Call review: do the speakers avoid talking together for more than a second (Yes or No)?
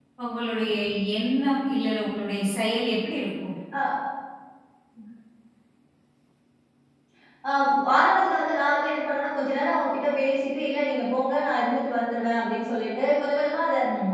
Yes